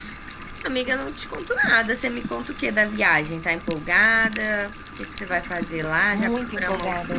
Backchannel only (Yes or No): No